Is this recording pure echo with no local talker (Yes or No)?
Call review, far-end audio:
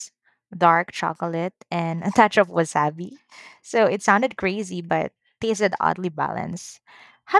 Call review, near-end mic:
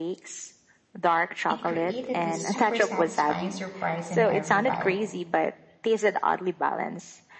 No